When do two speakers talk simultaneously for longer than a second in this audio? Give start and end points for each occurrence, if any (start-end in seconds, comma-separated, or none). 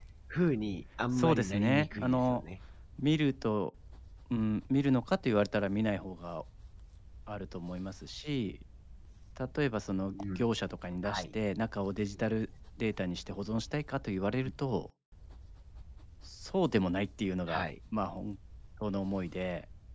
1.2-2.4